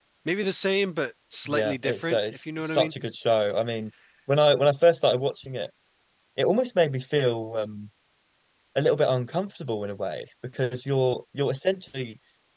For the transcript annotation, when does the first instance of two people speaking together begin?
1.5 s

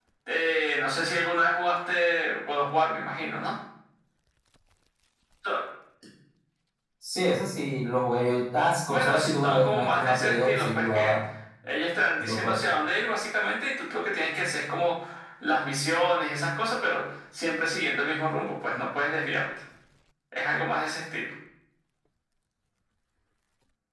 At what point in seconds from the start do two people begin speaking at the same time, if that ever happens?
8.9 s

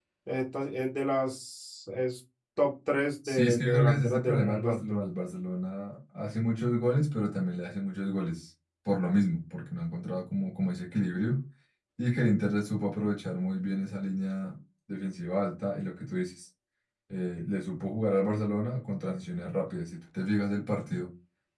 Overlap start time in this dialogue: 3.2 s

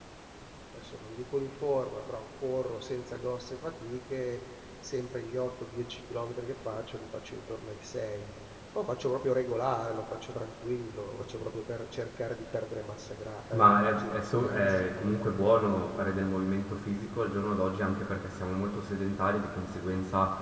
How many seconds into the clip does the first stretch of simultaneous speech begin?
13.5 s

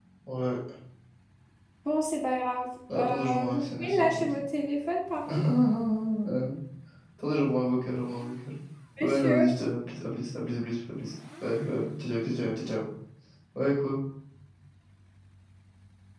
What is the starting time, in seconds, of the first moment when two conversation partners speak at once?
2.9 s

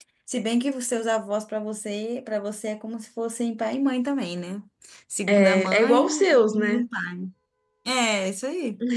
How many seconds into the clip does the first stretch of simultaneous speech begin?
5.3 s

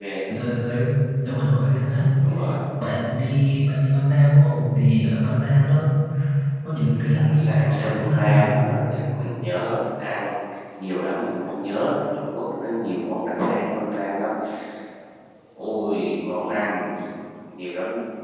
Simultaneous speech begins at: 7.1 s

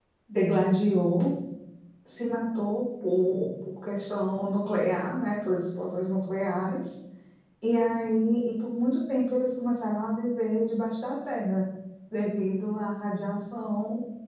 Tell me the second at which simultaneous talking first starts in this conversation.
none

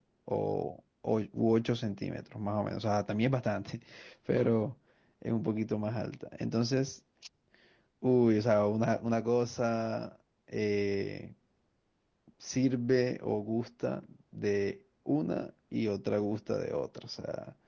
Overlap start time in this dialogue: none

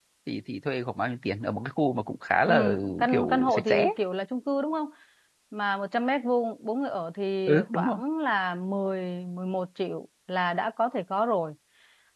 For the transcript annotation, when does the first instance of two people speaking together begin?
2.5 s

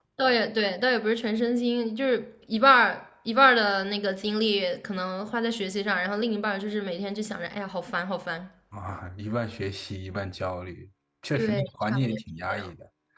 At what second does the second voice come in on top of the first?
11.4 s

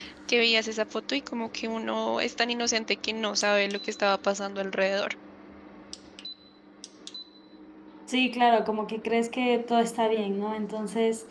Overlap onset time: none

